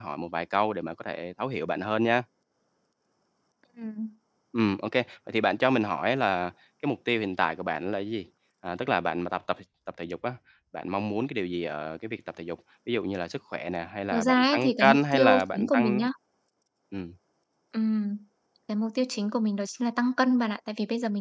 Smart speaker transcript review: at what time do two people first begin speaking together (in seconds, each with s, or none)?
14.1 s